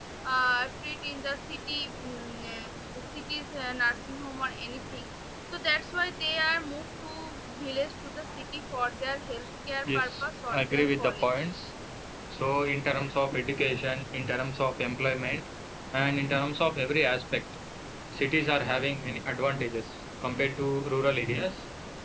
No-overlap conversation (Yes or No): No